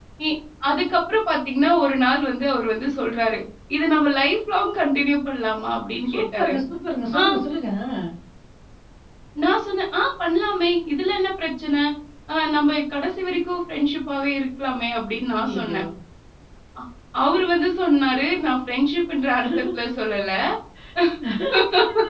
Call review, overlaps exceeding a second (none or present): none